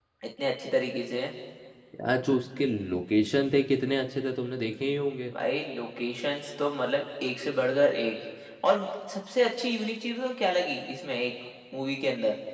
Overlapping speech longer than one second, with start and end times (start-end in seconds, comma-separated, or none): none